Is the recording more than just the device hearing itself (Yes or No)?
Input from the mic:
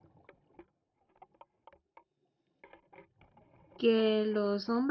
Yes